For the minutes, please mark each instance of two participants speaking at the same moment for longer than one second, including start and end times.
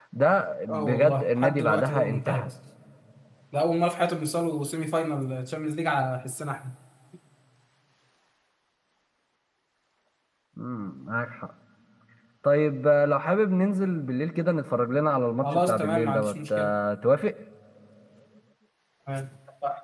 0.7-2.5, 15.4-16.7

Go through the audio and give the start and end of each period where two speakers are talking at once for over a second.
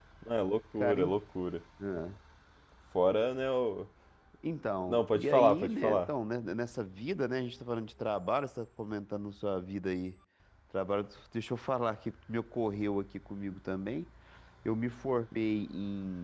4.9-6.1

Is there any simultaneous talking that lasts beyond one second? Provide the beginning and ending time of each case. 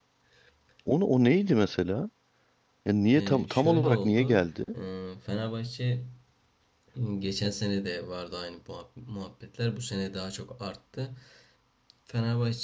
3.1-4.5

